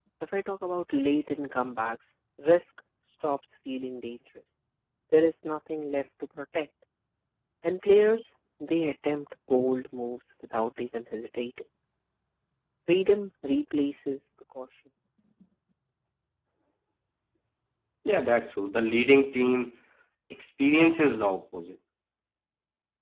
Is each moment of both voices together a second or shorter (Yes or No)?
Yes